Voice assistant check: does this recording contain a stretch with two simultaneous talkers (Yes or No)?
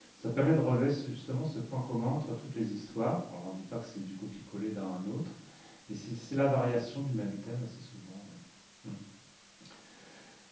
No